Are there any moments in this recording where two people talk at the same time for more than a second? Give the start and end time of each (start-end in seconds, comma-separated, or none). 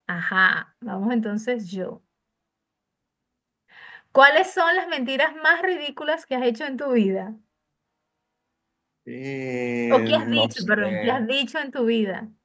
9.9-11.2